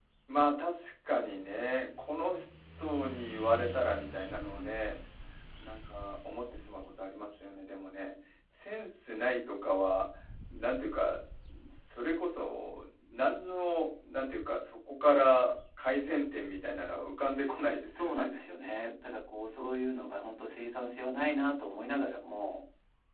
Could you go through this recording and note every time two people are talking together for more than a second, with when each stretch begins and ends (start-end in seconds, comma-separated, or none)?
none